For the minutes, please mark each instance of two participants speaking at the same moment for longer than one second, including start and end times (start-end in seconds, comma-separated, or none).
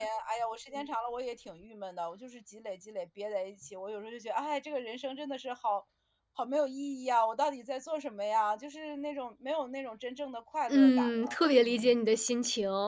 10.7-11.9